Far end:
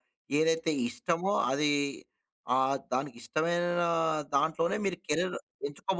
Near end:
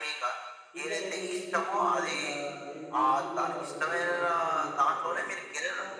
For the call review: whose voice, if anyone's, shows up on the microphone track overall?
both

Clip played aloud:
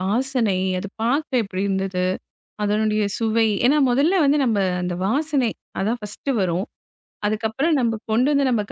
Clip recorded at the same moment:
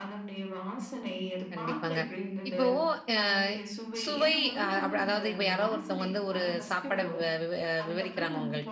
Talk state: both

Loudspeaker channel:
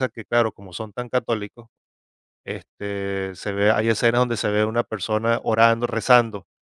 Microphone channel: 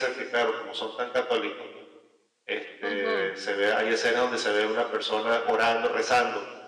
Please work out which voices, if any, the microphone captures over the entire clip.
both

